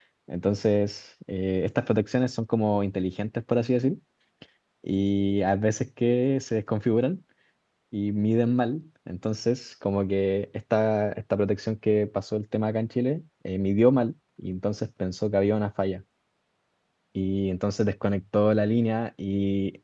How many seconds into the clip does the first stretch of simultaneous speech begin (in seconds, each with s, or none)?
none